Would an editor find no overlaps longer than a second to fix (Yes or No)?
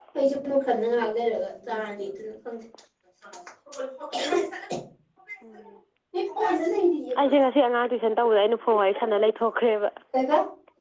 Yes